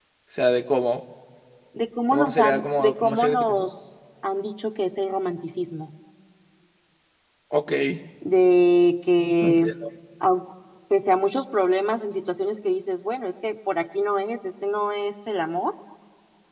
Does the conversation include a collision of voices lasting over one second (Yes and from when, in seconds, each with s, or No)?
Yes, from 2.1 s